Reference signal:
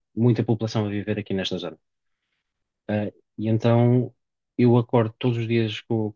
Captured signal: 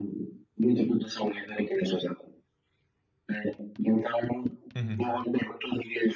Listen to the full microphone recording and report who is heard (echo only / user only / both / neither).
both